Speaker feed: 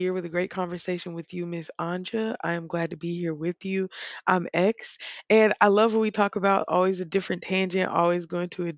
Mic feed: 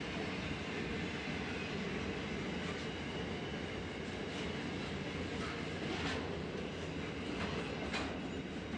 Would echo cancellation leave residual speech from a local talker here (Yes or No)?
No